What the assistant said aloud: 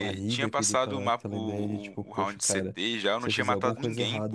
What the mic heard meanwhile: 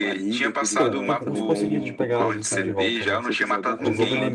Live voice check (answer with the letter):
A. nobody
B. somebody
B